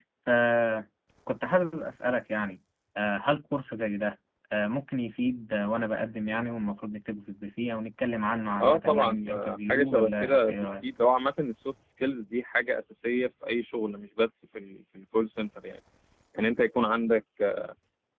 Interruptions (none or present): present